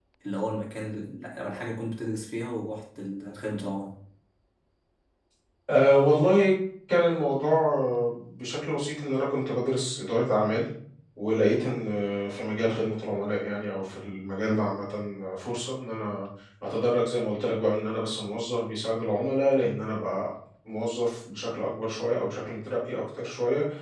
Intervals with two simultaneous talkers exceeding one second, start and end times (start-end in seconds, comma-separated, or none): none